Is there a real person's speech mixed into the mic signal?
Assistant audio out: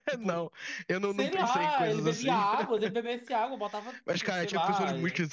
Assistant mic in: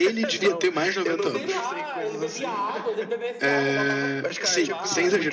Yes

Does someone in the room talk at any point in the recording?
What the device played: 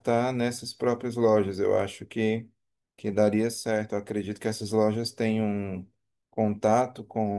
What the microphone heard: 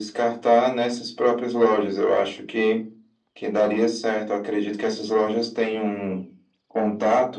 No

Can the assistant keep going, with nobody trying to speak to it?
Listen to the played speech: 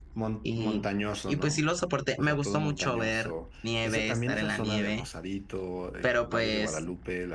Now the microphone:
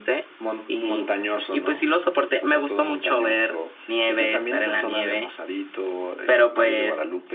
Yes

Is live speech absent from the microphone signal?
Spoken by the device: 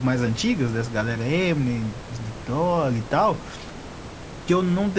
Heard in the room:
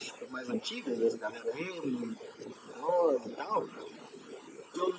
Yes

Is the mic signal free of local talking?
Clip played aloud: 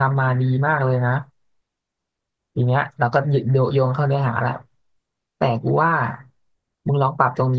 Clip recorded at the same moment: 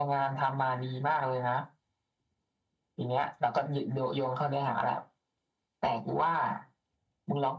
Yes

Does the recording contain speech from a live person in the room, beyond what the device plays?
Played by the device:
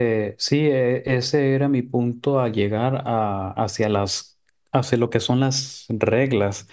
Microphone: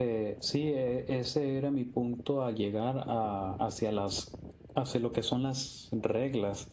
No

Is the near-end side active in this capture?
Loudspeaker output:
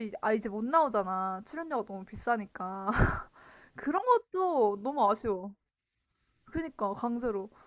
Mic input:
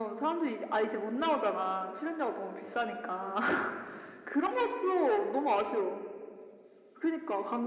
No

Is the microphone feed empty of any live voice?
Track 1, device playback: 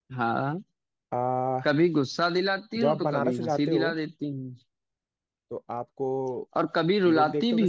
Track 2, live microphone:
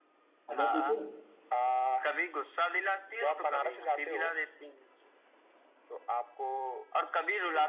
No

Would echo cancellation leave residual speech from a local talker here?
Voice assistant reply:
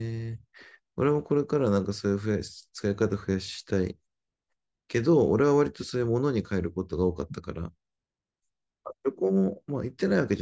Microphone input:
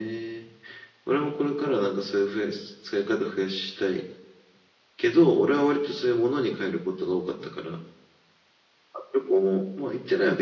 No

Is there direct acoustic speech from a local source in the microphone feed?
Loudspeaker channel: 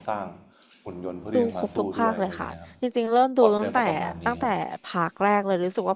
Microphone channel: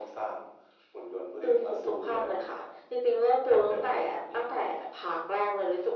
No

